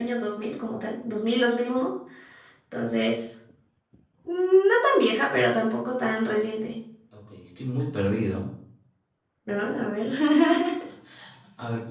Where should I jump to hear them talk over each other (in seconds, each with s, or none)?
none